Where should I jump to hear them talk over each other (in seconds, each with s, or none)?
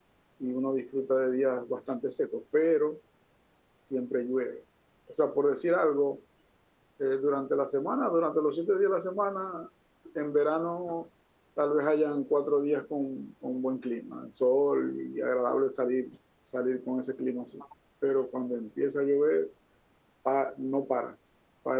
none